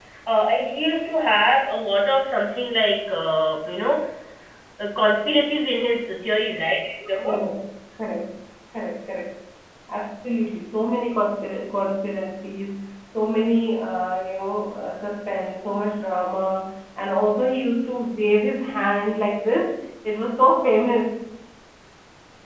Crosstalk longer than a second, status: none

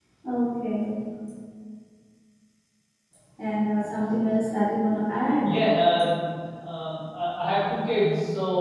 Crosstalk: none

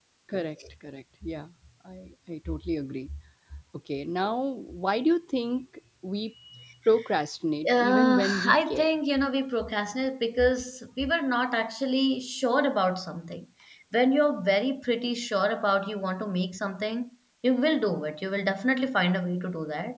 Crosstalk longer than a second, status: present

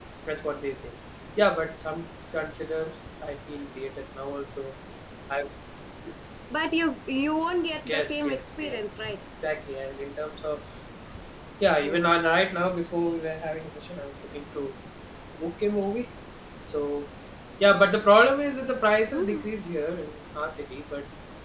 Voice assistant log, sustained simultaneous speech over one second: present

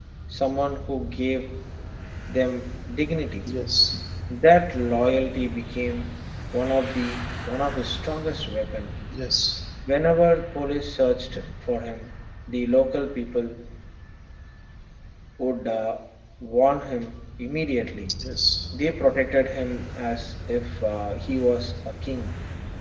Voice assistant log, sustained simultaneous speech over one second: none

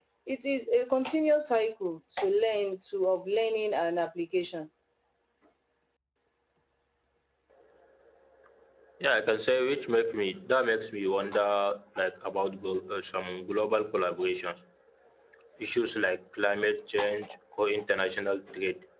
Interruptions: none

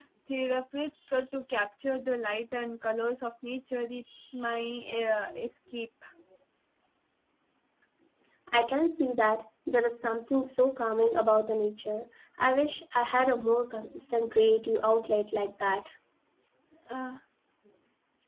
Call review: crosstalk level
none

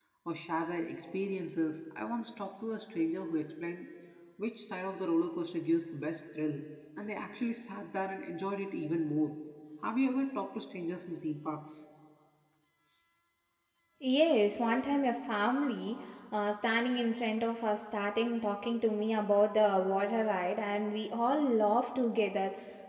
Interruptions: none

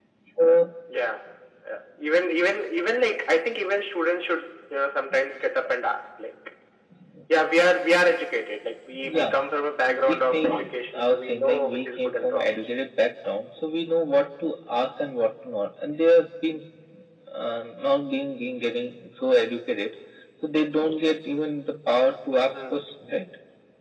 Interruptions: present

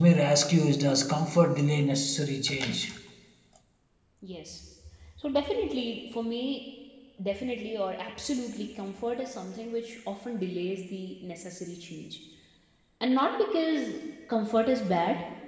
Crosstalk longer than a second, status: none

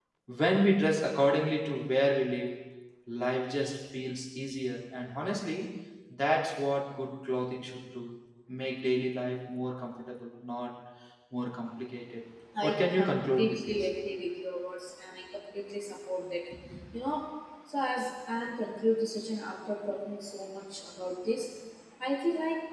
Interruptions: present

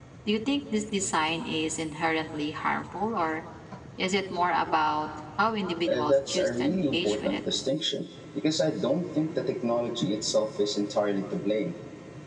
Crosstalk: present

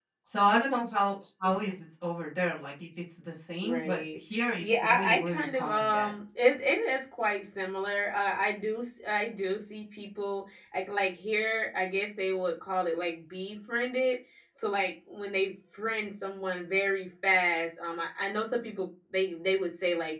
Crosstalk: present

